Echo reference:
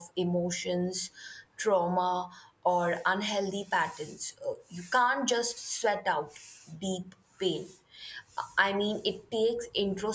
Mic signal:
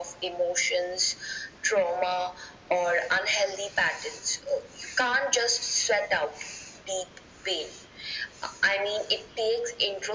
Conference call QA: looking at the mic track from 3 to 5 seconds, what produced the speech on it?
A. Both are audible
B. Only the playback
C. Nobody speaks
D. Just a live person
B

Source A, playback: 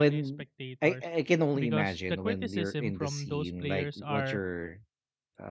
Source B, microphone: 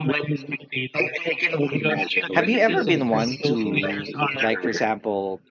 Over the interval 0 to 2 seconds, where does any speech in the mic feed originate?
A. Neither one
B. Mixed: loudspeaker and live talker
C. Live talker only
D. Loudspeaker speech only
D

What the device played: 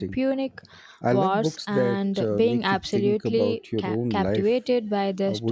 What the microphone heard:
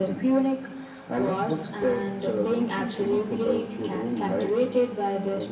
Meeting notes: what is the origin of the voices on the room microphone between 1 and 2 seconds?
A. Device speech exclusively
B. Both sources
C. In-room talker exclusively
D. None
A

